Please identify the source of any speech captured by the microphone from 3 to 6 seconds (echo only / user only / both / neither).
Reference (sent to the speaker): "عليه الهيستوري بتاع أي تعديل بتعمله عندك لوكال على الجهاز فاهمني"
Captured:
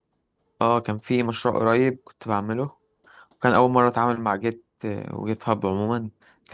user only